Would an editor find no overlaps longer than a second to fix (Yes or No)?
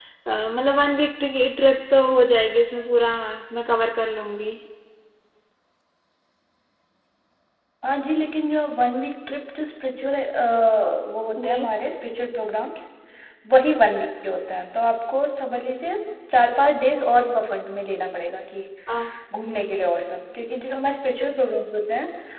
Yes